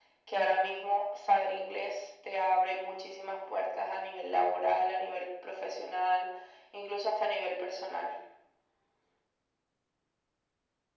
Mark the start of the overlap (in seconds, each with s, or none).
none